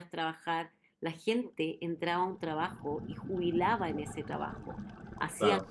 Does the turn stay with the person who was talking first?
Yes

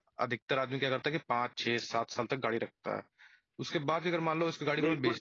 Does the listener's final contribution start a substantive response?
Yes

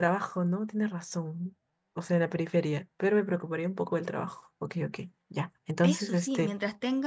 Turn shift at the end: Yes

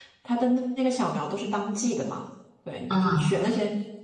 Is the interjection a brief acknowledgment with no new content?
Yes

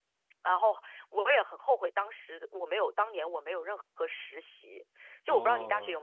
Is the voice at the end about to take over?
Yes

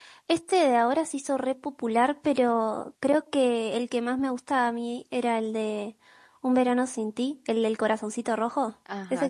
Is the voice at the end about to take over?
Yes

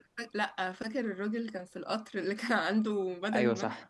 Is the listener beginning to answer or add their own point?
Yes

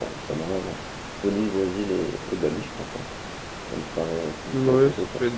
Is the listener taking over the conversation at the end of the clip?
Yes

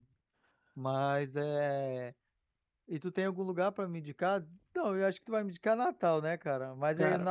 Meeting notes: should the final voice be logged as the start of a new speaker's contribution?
No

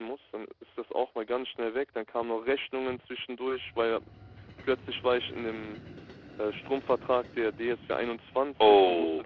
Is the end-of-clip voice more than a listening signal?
No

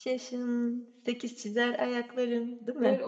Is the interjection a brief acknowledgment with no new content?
No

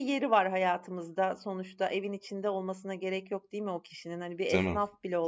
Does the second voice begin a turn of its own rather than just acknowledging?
No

